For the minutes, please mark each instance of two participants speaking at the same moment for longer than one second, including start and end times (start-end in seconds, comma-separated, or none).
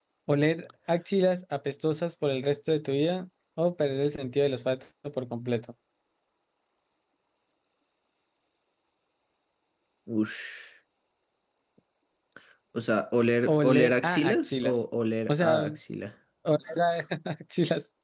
13.5-14.8